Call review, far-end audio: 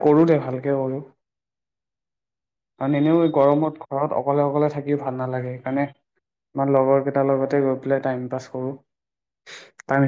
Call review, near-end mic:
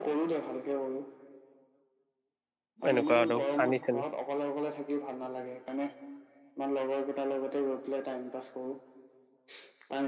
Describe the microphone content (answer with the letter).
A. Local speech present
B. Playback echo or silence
A